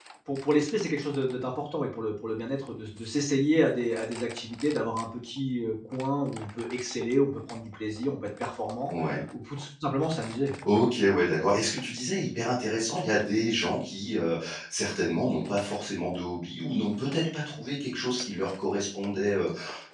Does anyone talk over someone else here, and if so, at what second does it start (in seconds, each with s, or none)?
none